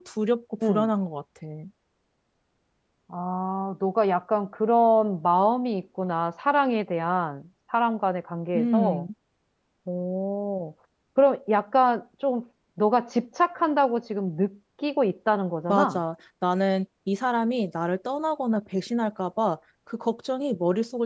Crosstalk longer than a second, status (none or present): none